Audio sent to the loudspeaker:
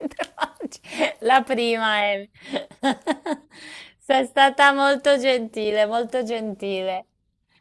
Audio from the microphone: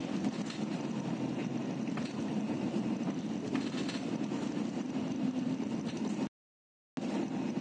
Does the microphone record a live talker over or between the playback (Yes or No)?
No